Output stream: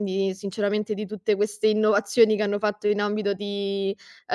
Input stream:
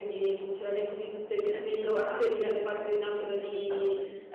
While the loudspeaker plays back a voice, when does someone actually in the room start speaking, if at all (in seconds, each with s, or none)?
1.4 s